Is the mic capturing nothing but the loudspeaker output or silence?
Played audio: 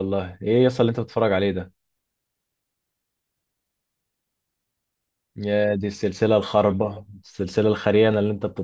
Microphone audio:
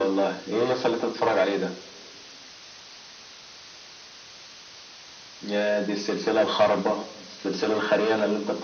Yes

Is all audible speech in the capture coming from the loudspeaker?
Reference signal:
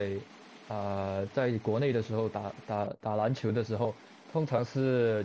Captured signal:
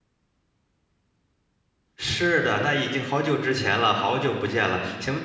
No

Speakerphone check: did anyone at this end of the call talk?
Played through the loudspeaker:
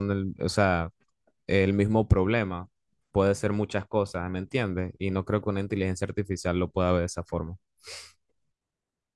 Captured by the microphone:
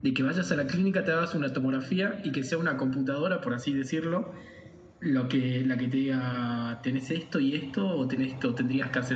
Yes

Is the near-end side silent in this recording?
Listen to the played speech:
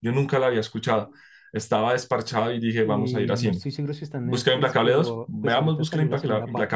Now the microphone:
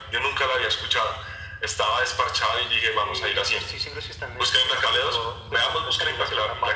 Yes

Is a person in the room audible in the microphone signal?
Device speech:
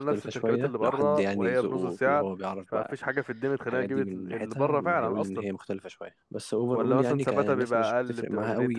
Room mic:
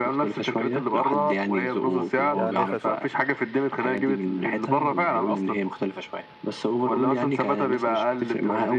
Yes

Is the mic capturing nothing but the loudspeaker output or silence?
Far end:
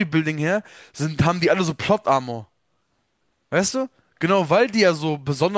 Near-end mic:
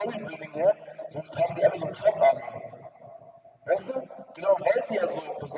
Yes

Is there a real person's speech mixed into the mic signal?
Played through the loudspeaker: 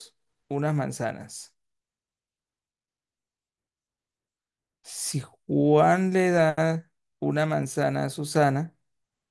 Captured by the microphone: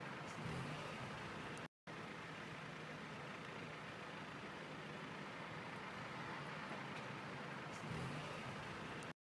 No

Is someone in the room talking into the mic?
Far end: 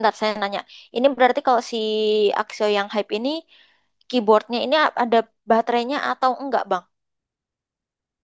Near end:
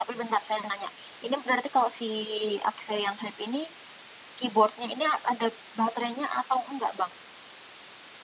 No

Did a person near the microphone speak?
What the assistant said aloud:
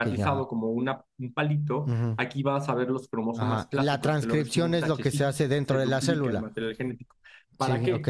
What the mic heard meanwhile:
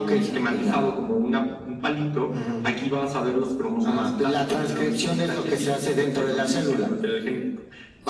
No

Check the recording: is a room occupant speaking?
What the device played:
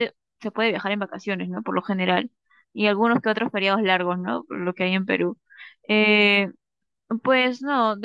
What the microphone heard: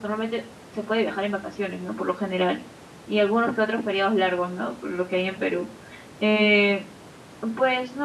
No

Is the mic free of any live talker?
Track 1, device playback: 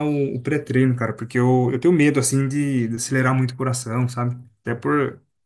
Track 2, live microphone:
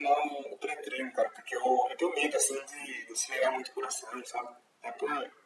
Yes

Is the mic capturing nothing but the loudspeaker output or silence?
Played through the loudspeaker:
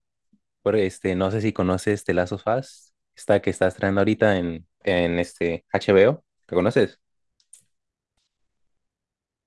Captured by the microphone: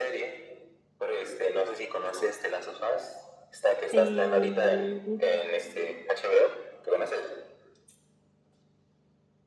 No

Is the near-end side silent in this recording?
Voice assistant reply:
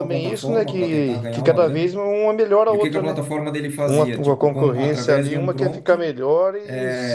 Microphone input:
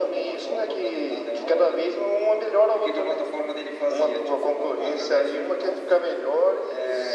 Yes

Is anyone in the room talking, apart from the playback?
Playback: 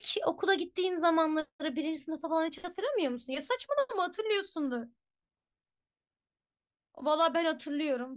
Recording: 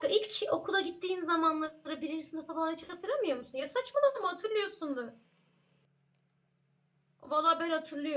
No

